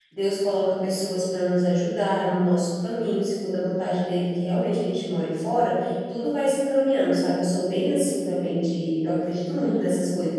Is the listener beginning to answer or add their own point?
No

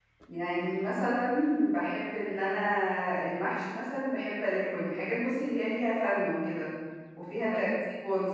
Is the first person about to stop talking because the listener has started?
No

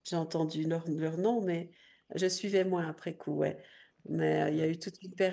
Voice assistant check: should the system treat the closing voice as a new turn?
No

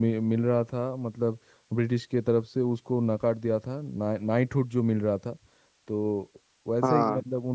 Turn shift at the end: No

